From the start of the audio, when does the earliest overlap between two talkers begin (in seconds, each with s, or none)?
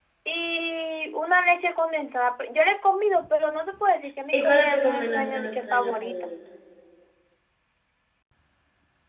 4.3 s